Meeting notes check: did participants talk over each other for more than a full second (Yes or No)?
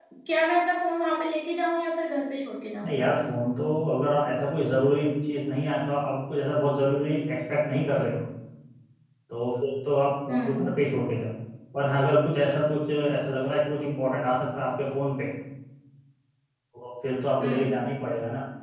No